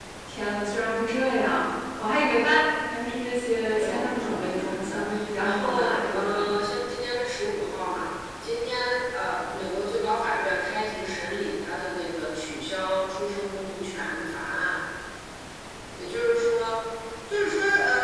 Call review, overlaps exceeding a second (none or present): present